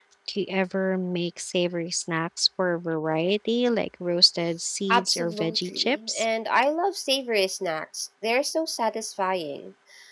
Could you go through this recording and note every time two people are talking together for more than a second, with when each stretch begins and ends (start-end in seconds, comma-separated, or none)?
4.9-6.2